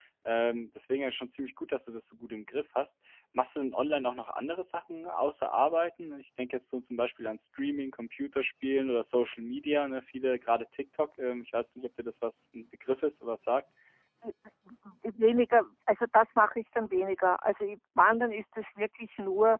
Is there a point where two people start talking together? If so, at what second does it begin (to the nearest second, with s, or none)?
none